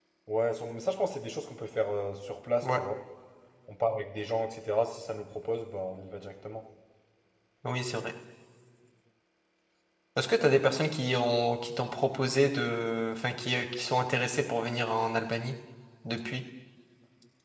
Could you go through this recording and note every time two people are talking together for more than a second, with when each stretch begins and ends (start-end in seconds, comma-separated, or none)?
none